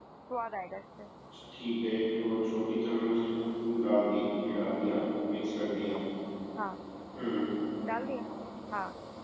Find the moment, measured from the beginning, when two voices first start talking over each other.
none

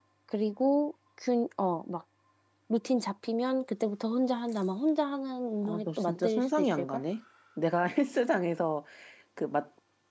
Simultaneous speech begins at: 6 s

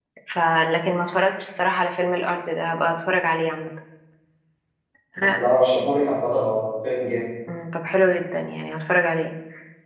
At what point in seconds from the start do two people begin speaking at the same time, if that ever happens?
none

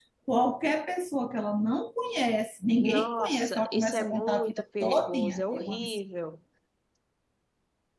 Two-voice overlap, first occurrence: 3 s

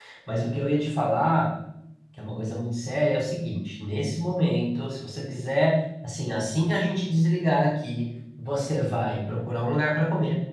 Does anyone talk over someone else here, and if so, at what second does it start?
none

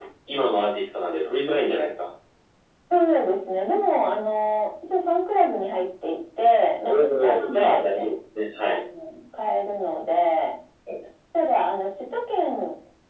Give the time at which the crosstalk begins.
7 s

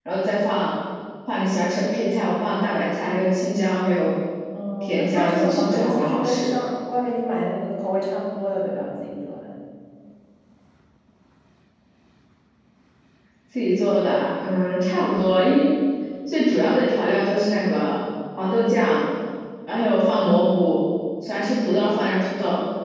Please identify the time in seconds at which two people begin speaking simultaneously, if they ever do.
5 s

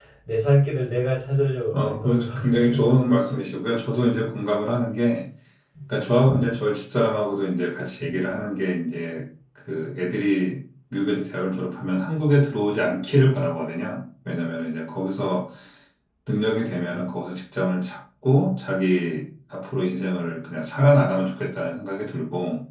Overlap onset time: 2 s

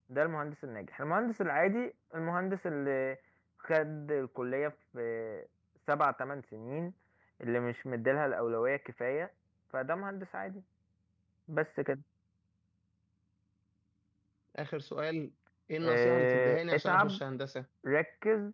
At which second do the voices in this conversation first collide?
16 s

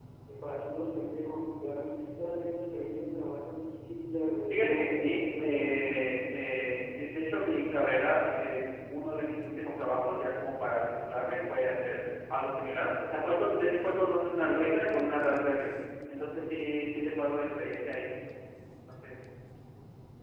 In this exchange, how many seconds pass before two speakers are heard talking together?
5 s

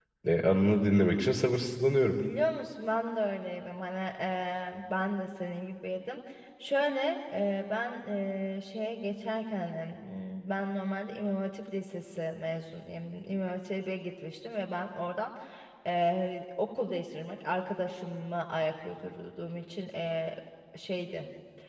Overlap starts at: none

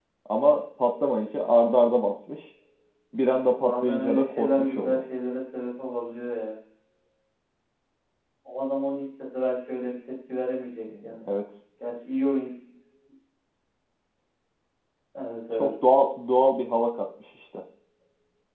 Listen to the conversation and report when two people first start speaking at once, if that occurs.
4 s

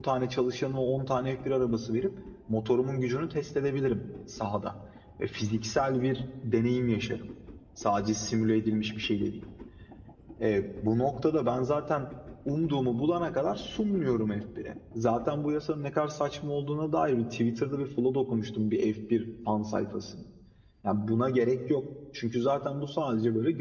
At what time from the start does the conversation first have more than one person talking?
none

